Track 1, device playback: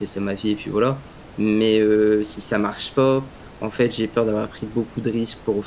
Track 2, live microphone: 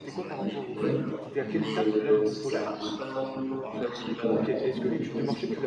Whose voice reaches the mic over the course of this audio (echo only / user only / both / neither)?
both